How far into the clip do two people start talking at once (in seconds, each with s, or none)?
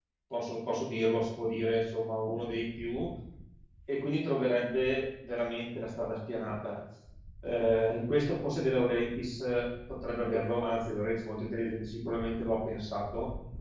none